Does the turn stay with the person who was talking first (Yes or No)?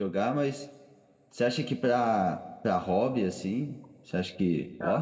No